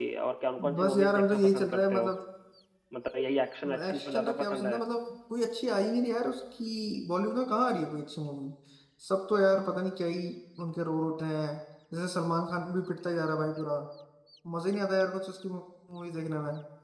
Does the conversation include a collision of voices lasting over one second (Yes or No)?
Yes